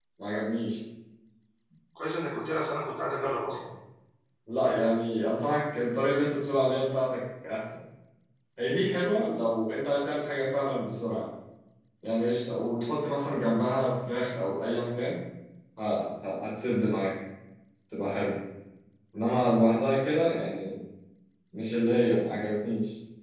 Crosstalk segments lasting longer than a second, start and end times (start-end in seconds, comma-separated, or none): none